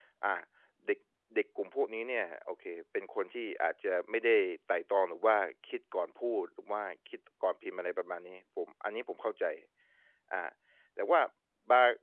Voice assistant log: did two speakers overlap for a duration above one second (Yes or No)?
No